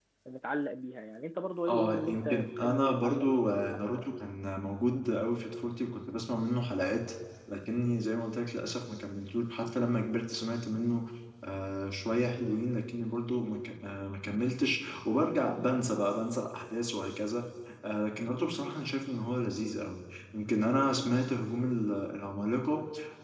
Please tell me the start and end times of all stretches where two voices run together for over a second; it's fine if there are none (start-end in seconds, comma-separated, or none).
1.7-4.1